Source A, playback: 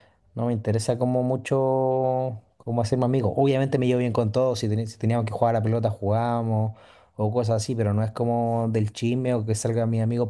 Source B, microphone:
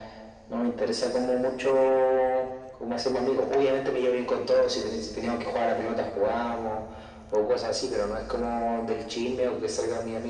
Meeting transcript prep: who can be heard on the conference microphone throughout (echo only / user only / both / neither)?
echo only